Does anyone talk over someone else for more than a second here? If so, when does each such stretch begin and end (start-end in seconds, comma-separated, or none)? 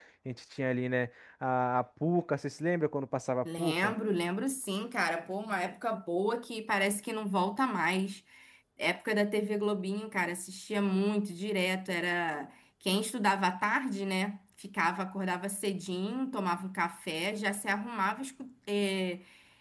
none